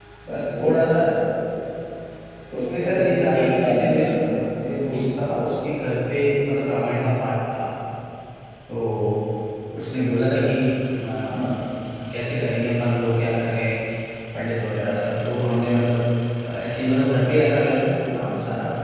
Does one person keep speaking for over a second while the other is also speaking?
Yes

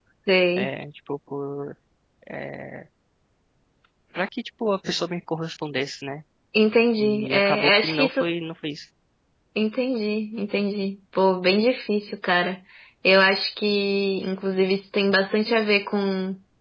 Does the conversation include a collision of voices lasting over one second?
Yes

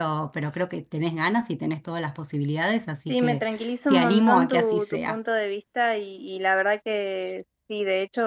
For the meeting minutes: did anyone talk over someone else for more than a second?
Yes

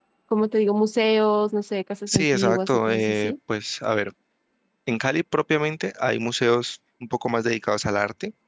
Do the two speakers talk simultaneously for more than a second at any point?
Yes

